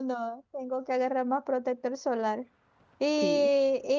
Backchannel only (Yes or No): Yes